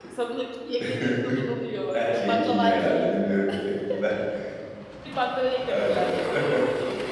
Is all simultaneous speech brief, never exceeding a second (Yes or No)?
No